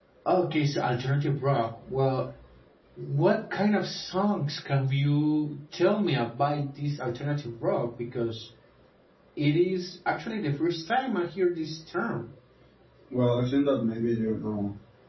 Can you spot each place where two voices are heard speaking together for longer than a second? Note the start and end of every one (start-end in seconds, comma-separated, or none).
none